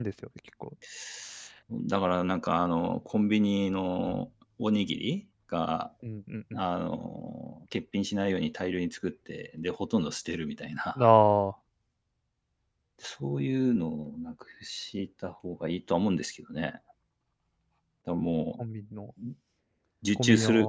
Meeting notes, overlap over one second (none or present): none